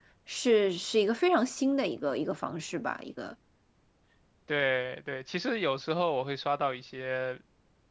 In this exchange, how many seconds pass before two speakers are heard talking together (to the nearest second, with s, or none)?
none